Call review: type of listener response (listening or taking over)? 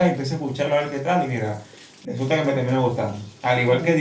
listening